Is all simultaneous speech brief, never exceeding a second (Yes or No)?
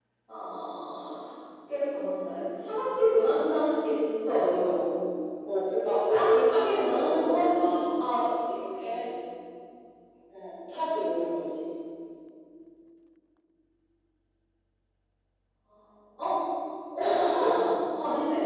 No